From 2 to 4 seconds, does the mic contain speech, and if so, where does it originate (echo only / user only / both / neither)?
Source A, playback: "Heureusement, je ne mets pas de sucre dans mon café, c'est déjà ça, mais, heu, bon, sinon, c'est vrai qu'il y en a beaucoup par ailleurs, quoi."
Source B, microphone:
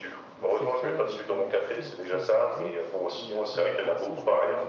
both